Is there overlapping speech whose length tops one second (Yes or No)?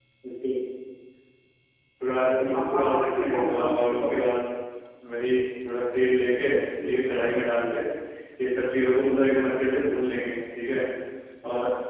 Yes